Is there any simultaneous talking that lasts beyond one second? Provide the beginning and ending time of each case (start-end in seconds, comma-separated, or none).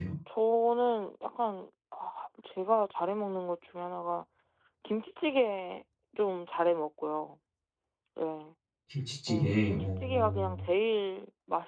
9.3-10.7